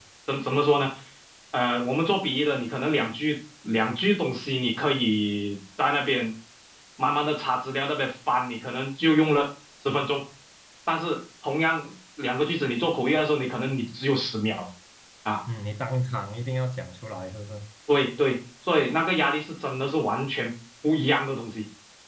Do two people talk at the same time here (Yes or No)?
No